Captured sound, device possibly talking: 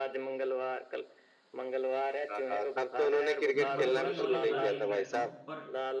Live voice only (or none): मैं थोड़ी थोड़ी नॉलेज हर गेम की रखता हूँ पर